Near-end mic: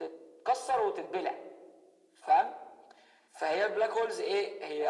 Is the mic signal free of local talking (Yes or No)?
Yes